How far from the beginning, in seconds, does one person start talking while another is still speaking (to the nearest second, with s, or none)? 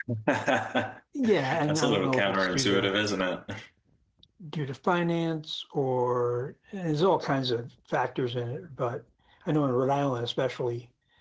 1 s